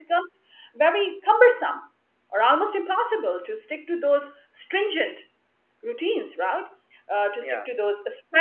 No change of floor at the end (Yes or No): Yes